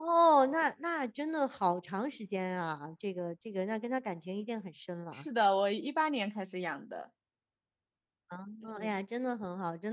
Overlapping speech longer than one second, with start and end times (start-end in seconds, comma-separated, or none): none